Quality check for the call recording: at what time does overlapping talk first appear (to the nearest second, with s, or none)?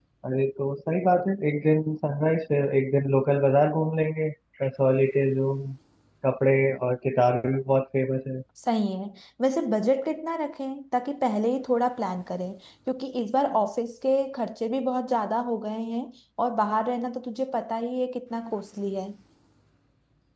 none